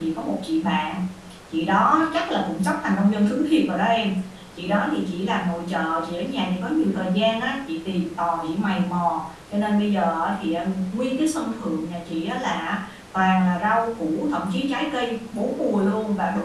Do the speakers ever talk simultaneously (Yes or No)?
No